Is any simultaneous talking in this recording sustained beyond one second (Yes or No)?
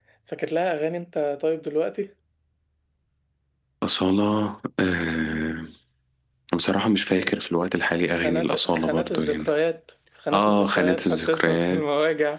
Yes